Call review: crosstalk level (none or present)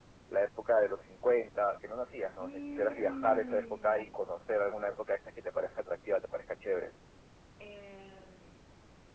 present